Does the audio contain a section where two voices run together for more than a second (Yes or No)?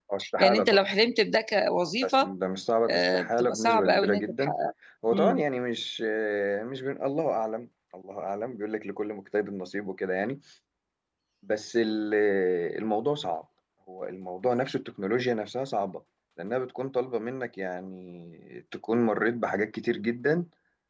Yes